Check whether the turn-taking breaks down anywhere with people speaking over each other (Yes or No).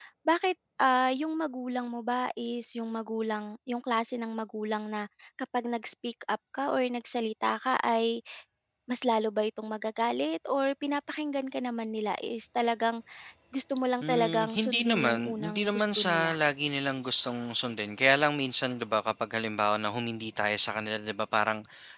Yes